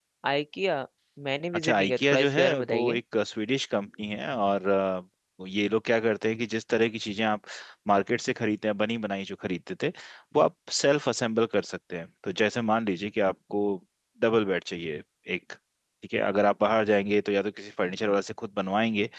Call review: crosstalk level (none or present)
present